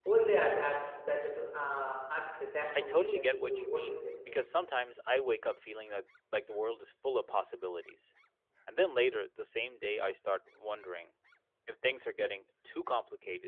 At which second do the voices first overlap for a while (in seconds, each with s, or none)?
2.7 s